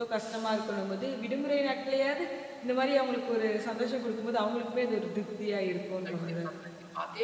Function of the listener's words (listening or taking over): taking over